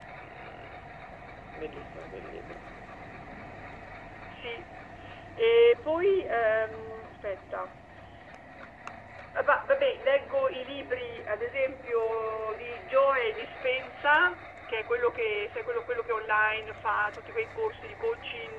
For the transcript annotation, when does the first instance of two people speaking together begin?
none

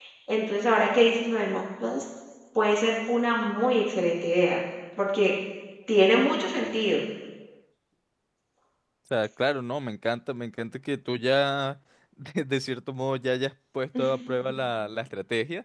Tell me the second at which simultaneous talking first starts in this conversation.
none

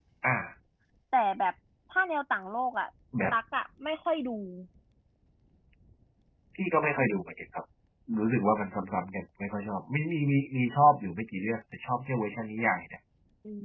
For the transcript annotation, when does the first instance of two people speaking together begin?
none

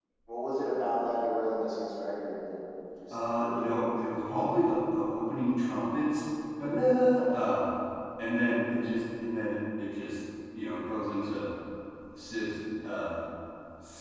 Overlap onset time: 3.1 s

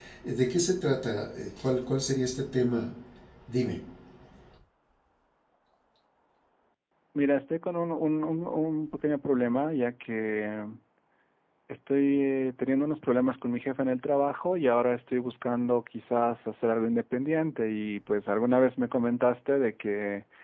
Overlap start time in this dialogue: none

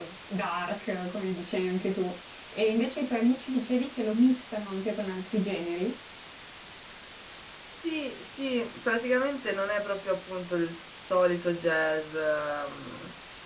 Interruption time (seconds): none

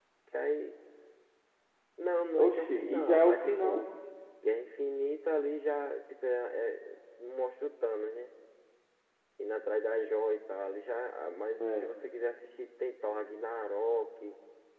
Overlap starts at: 2.4 s

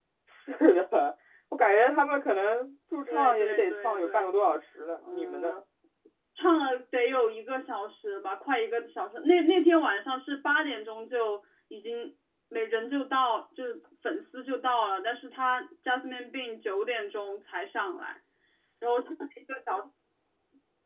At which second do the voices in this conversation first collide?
3.1 s

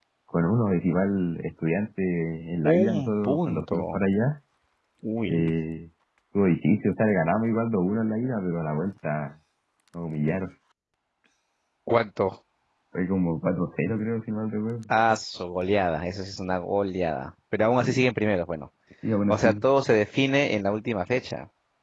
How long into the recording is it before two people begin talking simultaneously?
2.6 s

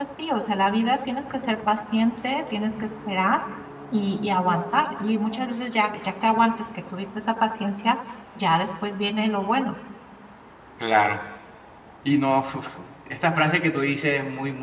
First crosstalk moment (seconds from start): none

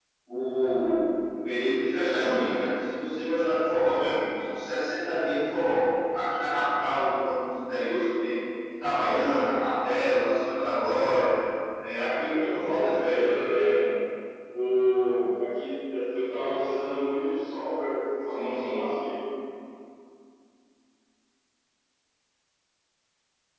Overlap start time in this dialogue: 11.9 s

